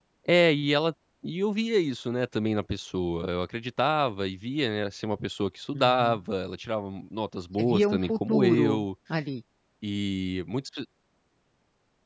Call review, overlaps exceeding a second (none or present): present